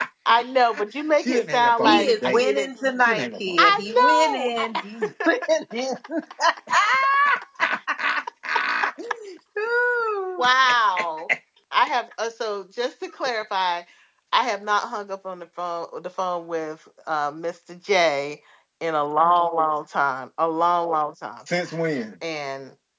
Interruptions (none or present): present